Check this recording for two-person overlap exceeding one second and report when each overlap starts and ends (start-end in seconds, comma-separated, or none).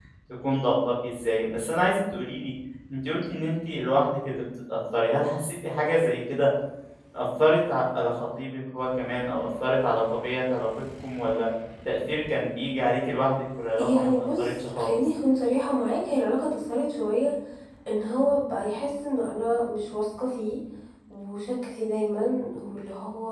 13.8-15.0